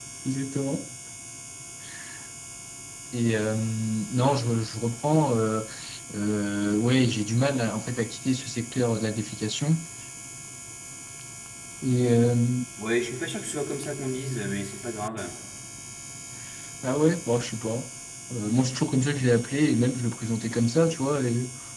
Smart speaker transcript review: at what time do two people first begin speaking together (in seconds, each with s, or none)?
none